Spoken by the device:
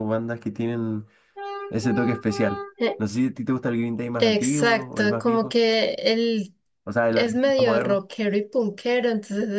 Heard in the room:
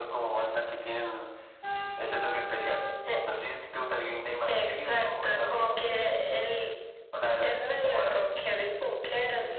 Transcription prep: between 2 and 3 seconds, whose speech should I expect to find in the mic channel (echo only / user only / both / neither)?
echo only